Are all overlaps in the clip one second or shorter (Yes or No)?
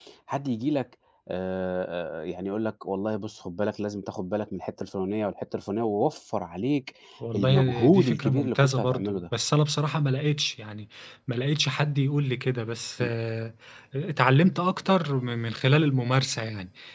No